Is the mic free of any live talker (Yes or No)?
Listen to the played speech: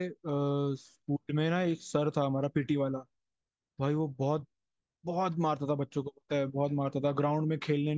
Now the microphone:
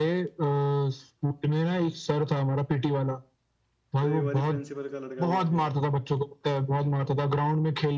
No